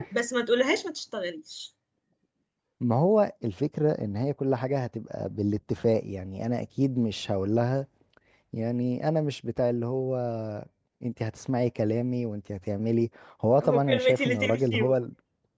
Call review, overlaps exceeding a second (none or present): present